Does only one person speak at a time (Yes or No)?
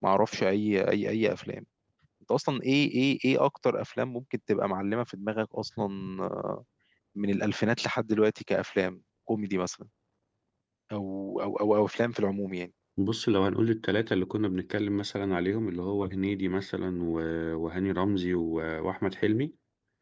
Yes